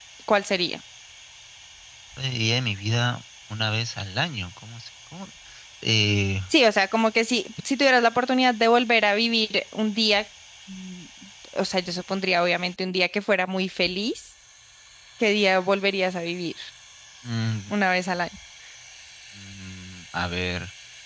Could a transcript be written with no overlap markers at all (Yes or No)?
Yes